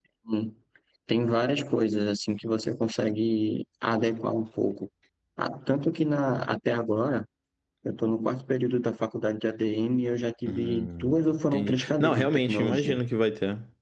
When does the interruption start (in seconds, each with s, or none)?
10.5 s